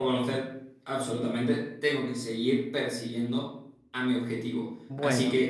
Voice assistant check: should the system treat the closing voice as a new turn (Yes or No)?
No